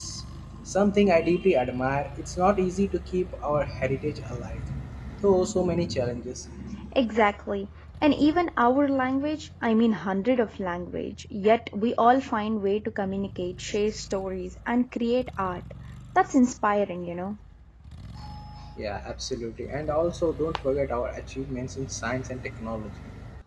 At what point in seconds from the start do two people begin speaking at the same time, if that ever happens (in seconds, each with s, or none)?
none